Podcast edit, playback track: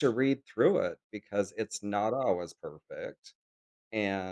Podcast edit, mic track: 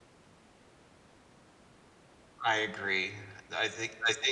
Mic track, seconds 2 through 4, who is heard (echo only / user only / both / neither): user only